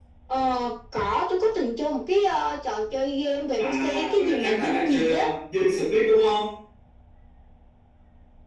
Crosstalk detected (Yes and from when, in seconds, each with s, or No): Yes, from 3.6 s